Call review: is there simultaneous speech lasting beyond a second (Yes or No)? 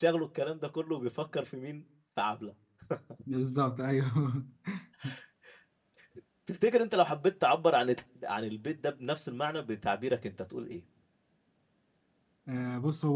No